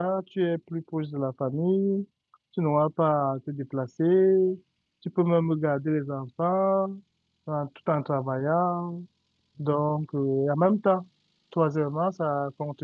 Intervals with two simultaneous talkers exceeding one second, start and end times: none

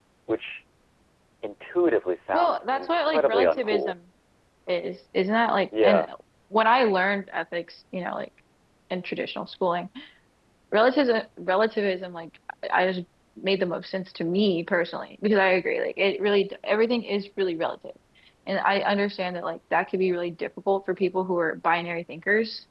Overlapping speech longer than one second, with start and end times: 2.3-3.9

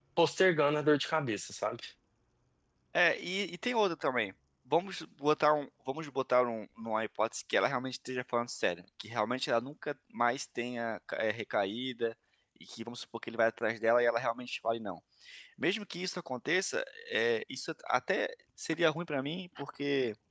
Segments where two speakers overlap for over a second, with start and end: none

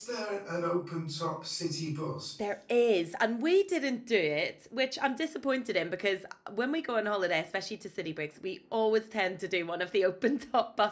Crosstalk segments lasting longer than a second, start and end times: none

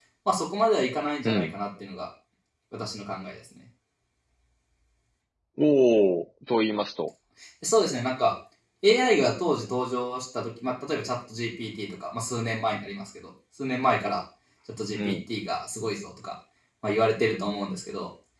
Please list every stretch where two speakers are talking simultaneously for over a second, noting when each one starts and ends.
none

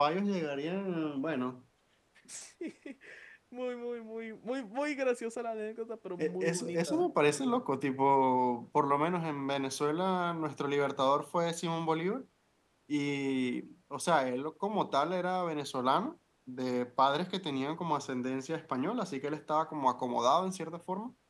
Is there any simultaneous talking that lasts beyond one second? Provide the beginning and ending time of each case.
6.2-7.6

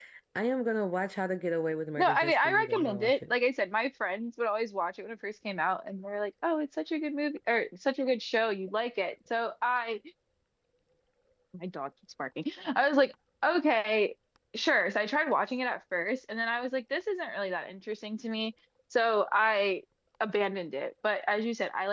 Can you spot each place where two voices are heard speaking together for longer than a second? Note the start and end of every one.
2.0-3.3

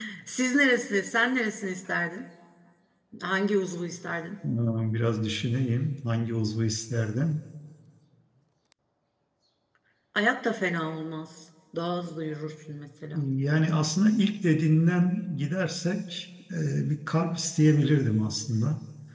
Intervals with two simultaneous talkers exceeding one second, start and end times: none

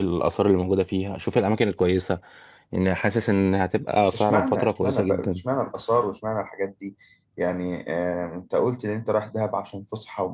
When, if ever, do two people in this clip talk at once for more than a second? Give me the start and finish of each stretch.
4.0-5.4

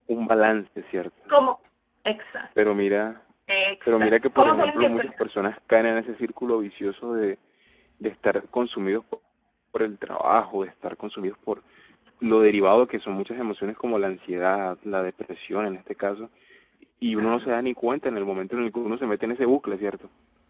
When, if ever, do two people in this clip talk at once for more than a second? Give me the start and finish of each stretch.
3.9-5.1

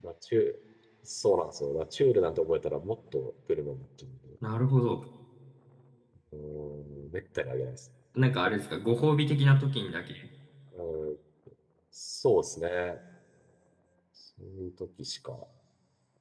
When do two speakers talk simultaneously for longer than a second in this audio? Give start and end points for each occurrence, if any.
none

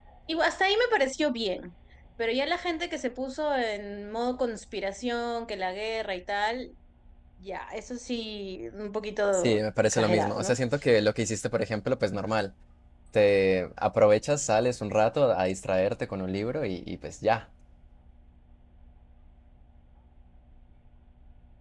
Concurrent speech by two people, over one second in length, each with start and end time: 9.3-10.6

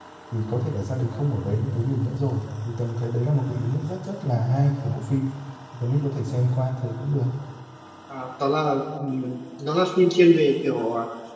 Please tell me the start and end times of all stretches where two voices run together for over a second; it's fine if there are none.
none

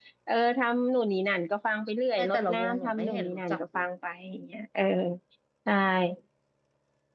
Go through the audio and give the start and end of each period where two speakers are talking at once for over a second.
2.2-3.8

